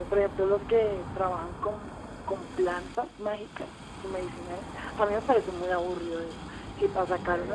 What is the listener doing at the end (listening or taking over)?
listening